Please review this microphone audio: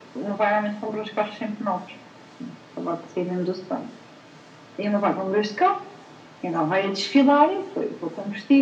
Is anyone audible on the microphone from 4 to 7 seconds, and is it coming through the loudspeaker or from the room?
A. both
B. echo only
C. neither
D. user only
B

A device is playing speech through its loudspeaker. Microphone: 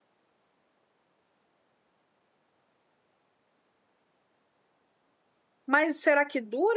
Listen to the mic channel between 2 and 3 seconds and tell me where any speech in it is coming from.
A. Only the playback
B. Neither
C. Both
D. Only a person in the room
B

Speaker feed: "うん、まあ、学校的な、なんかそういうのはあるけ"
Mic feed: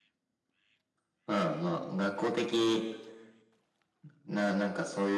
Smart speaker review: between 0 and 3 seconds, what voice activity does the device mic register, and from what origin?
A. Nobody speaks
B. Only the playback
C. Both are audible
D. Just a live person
B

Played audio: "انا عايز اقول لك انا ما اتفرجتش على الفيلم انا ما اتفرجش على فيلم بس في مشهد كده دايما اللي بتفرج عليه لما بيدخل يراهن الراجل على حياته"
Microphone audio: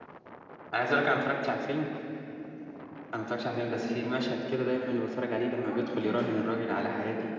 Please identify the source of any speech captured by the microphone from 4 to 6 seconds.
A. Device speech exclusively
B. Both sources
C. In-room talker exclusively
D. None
B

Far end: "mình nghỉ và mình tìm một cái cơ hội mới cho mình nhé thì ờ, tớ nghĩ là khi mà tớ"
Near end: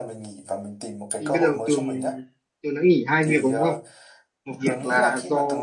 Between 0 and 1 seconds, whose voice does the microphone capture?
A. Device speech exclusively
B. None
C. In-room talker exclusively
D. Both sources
A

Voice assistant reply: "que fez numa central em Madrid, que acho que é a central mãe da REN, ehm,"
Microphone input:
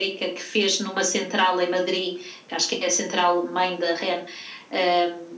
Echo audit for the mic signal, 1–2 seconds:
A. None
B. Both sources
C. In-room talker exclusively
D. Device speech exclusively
D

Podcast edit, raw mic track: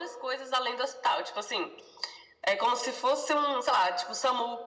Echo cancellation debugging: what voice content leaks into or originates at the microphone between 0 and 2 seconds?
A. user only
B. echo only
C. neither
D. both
B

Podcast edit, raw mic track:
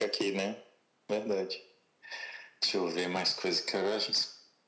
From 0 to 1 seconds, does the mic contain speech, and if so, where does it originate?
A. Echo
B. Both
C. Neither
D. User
A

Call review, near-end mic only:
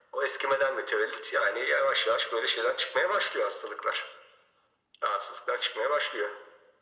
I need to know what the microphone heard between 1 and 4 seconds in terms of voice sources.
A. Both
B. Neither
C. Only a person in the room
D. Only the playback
D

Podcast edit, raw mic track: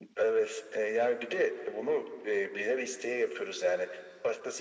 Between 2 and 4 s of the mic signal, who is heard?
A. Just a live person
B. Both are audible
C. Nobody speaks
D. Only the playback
D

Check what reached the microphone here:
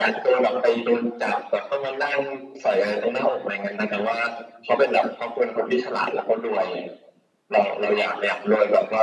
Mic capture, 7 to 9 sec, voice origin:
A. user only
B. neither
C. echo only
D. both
C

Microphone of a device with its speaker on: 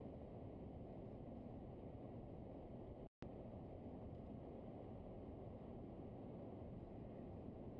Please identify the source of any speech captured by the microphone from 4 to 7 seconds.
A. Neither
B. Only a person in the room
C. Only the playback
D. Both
A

